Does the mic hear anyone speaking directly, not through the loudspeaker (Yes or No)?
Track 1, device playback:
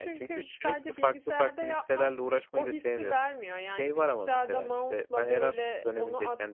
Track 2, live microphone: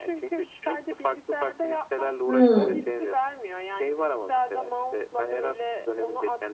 Yes